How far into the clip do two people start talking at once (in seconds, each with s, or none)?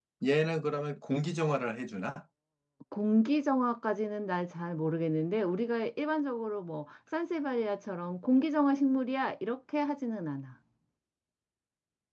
none